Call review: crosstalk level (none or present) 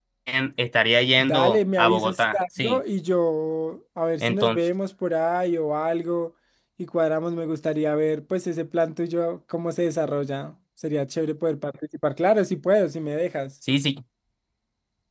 present